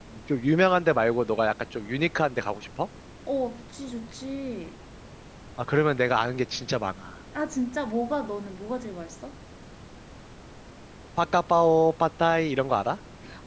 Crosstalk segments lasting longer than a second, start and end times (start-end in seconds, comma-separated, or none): none